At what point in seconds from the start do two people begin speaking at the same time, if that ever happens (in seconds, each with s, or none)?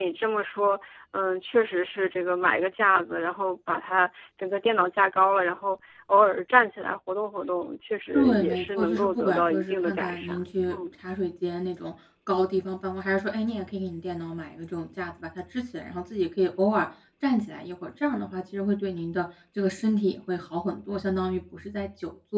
8.1 s